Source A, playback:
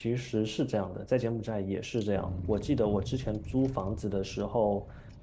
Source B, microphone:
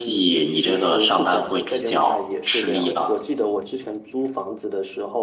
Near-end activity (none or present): present